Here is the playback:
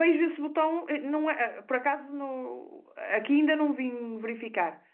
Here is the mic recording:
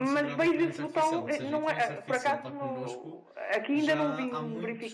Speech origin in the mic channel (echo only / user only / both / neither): both